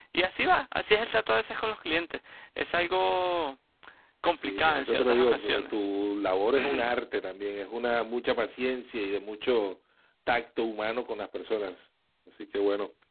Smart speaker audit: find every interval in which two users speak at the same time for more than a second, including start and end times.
4.3-5.7

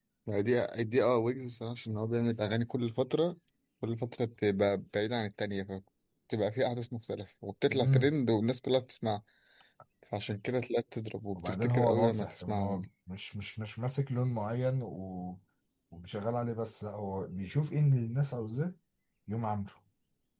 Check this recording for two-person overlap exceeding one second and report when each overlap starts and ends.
11.3-12.8

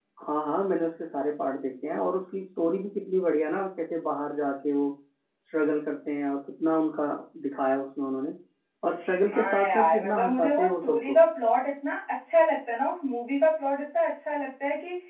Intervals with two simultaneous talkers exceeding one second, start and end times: 9.3-11.2

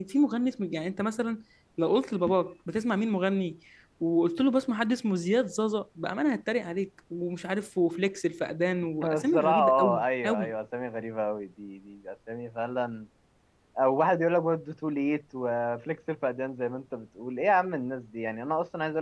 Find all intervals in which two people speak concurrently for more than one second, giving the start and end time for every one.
9.0-10.5

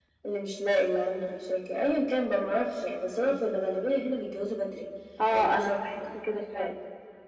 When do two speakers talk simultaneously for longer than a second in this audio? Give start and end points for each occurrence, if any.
5.3-6.7

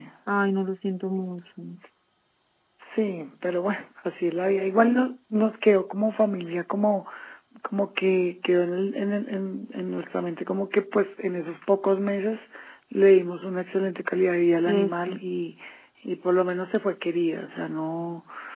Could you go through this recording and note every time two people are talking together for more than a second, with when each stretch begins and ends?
none

